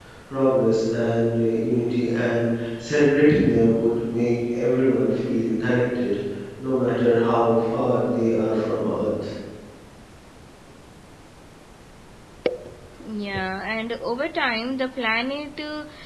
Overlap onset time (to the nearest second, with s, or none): none